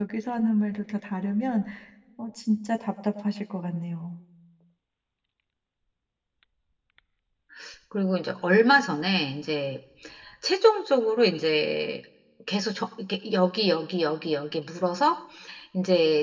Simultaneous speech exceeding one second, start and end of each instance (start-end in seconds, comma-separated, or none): none